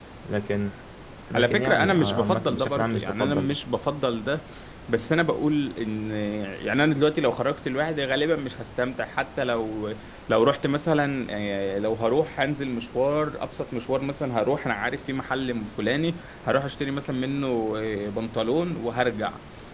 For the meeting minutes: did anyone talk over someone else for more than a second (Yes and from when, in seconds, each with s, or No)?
Yes, from 1.3 s